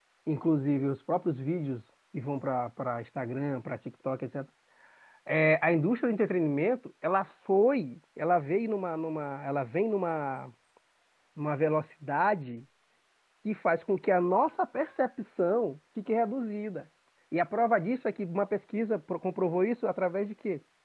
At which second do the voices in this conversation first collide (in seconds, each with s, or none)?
none